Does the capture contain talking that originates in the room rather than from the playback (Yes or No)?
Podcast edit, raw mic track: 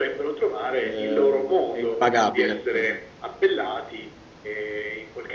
Yes